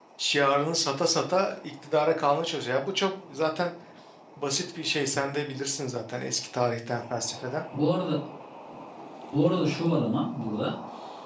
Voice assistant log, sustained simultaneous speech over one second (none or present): none